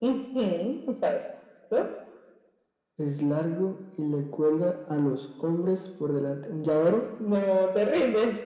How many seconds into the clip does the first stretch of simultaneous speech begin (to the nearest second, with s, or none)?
none